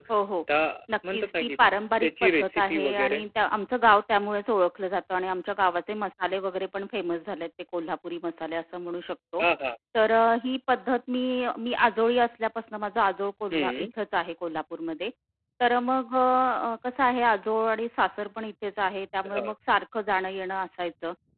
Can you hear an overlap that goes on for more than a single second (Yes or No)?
Yes